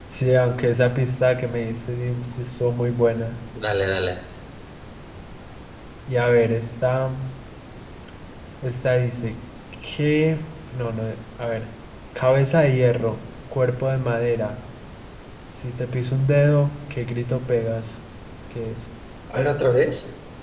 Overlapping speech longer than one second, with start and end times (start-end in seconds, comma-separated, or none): none